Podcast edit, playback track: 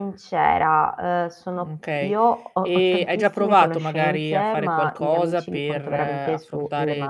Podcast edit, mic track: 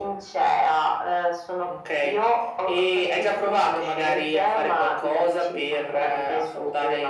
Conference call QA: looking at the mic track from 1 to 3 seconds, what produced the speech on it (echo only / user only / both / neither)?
echo only